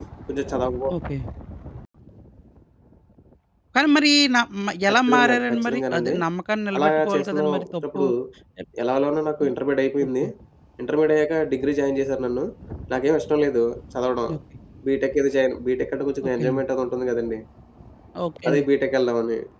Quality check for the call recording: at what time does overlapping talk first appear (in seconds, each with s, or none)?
4.9 s